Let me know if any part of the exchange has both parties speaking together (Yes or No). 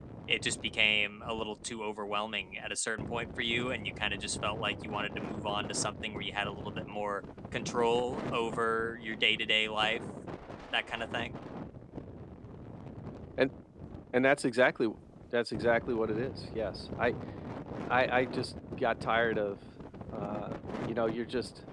No